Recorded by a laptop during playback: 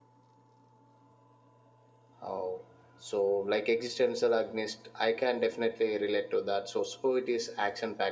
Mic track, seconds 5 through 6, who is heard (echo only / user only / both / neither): user only